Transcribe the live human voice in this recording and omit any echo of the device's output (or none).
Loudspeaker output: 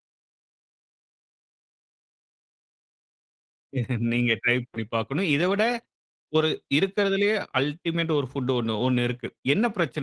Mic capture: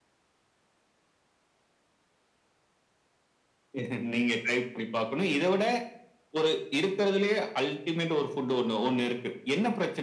none